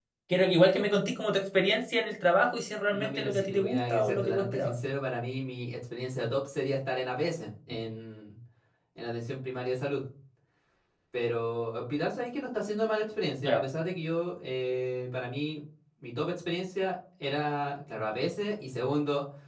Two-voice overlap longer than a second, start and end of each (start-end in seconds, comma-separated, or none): 2.9-4.7